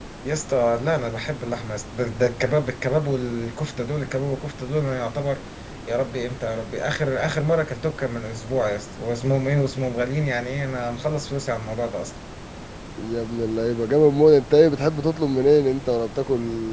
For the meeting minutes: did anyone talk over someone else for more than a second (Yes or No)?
No